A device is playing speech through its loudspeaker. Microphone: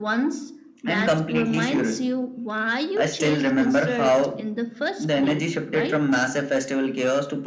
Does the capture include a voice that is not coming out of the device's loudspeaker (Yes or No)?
No